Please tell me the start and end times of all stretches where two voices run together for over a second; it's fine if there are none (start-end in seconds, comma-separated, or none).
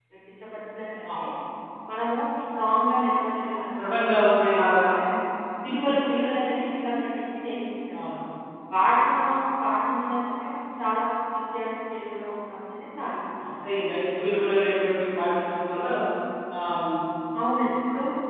none